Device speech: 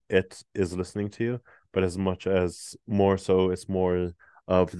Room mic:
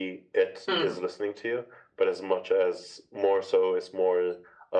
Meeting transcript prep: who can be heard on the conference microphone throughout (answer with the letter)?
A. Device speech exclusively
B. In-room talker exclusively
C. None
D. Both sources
D